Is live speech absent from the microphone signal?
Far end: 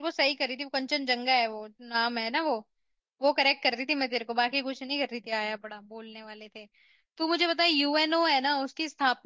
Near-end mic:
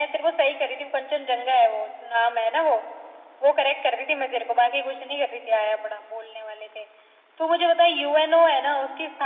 Yes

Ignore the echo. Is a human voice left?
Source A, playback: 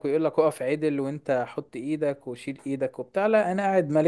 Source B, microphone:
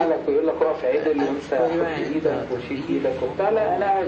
Yes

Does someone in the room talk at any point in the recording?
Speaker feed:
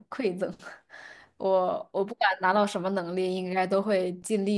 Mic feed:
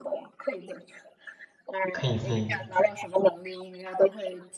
Yes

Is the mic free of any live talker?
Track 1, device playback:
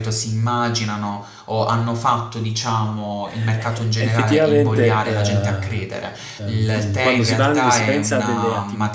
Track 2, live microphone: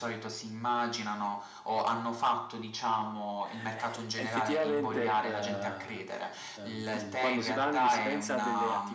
Yes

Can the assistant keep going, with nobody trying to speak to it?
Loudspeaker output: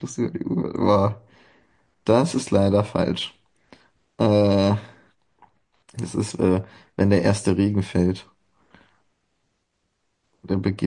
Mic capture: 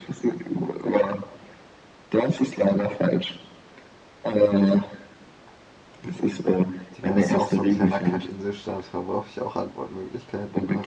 No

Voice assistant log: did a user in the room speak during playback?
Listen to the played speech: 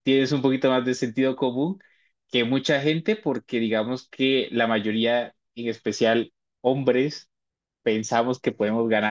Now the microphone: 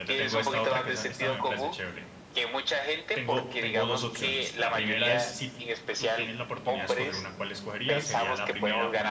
Yes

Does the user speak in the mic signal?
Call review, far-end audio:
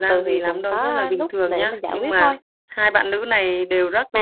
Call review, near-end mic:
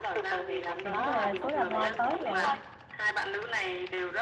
Yes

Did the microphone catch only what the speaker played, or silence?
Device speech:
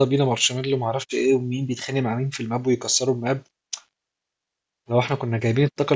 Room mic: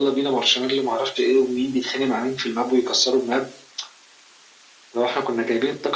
Yes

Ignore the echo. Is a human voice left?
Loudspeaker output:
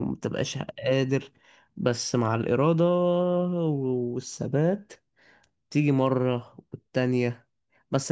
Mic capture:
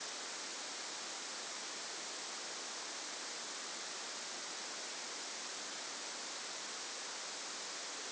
No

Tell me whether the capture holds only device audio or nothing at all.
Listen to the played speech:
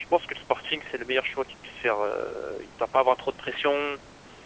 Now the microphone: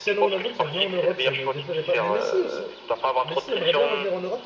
No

